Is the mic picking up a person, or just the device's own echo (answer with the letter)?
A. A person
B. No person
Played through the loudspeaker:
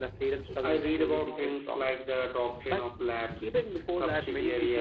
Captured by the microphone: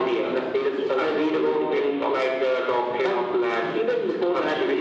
B